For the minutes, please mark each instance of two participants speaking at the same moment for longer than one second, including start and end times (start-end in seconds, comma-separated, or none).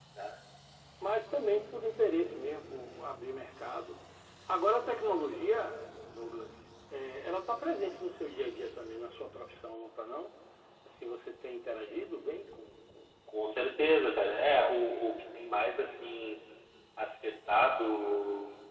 none